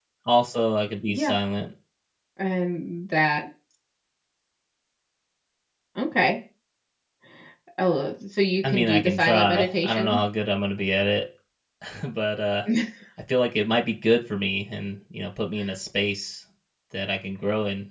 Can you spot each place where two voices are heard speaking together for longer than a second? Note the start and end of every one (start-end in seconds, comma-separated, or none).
8.6-10.2